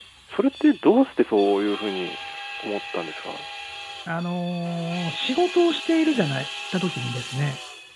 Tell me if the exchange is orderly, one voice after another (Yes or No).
Yes